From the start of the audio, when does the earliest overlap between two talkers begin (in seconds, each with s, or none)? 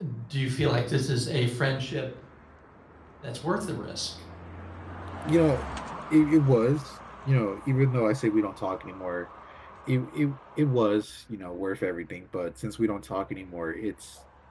none